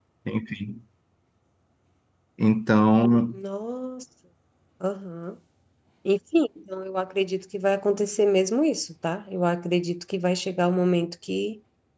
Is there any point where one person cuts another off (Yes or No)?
No